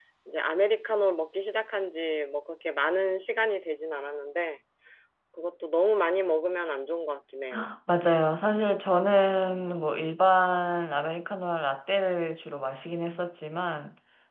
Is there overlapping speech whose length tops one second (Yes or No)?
No